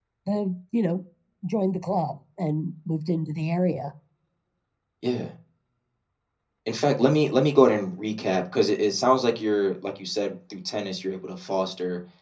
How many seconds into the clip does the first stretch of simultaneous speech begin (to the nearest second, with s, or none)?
none